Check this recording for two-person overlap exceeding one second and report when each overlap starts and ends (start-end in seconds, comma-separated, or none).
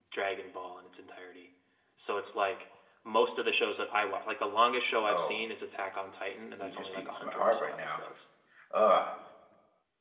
6.6-8.0